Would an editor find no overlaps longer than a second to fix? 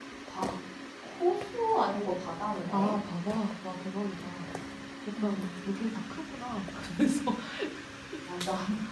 Yes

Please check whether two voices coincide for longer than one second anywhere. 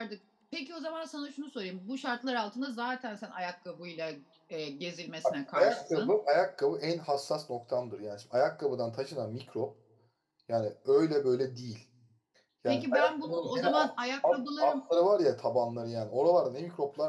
Yes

